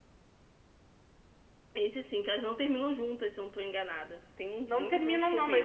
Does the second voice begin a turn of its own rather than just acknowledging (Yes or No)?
Yes